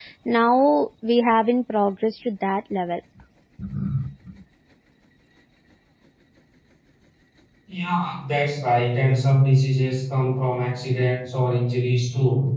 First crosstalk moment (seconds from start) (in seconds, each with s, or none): none